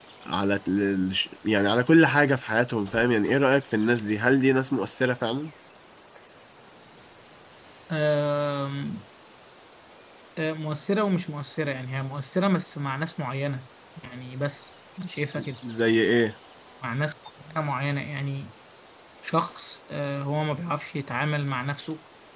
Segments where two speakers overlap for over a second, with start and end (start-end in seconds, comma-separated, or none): none